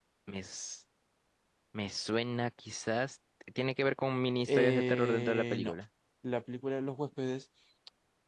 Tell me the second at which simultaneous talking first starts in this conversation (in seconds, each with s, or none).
4.5 s